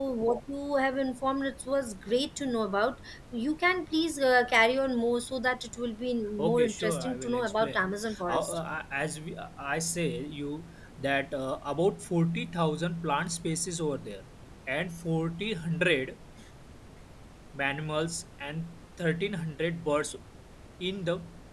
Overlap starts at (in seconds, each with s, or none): 6.4 s